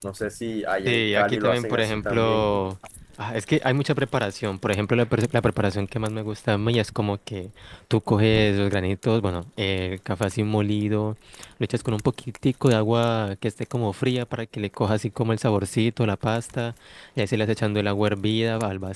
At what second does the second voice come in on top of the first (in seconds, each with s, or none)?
0.9 s